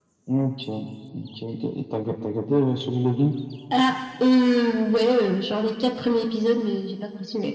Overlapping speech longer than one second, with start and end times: none

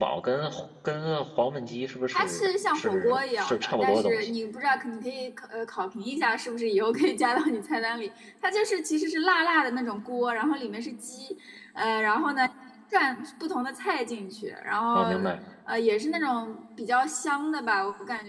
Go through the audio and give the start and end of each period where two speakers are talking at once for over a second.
2.1-4.3

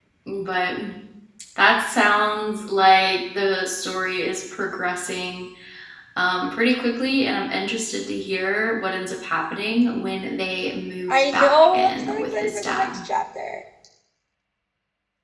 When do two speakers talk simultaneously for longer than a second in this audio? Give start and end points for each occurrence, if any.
11.1-13.0

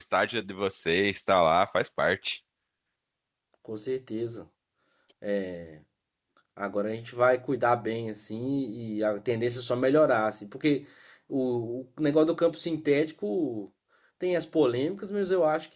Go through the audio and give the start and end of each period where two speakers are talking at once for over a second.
none

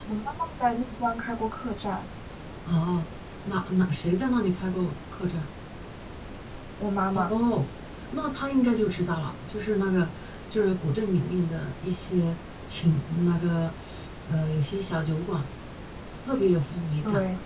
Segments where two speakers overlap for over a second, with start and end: none

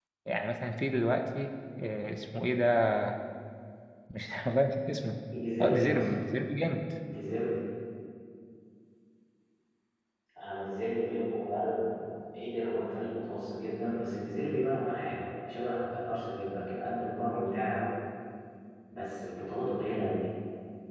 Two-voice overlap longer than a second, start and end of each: none

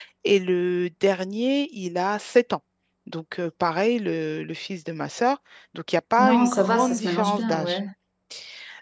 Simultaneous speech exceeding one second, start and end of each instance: 6.2-7.8

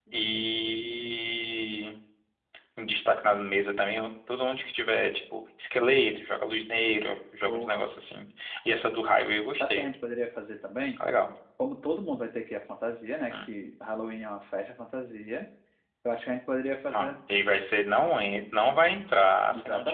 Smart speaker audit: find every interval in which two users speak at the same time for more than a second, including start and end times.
none

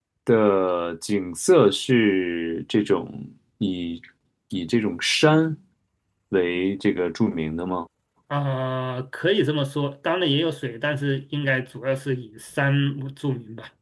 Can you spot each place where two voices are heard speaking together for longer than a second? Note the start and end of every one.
none

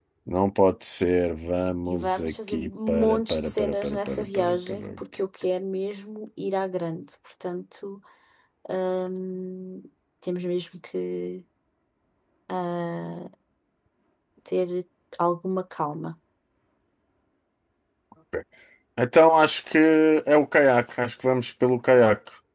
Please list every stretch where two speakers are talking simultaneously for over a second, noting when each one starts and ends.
1.9-5.0

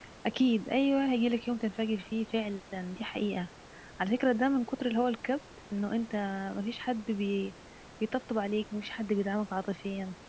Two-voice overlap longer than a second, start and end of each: none

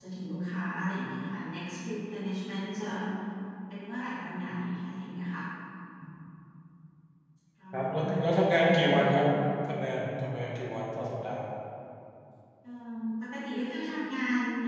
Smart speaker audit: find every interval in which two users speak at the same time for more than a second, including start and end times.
7.7-9.0

